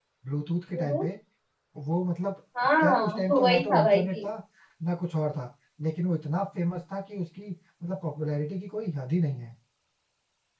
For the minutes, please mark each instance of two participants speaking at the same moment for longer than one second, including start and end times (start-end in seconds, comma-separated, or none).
2.8-4.2